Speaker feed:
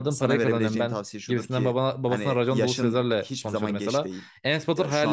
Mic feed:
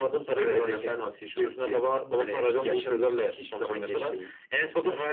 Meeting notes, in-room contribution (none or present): none